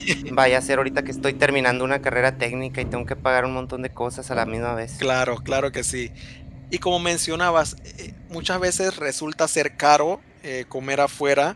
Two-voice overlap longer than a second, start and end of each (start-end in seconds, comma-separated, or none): none